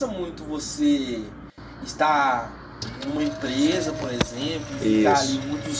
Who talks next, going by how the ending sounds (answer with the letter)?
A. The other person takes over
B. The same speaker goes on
B